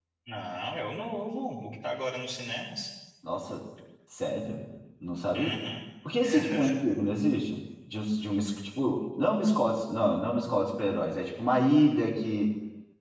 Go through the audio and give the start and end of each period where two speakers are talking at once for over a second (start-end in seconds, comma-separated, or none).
none